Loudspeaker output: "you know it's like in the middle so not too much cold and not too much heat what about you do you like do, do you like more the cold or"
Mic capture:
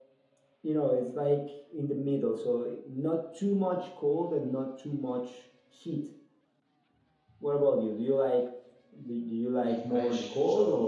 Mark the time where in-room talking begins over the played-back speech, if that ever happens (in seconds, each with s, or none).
9.6 s